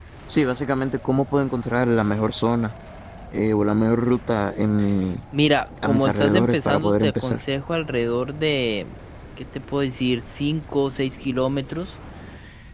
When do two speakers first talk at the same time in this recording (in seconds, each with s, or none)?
5.8 s